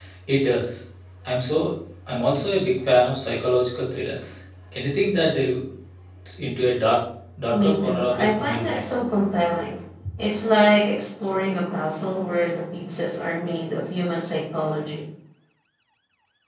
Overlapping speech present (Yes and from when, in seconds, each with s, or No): Yes, from 7.5 s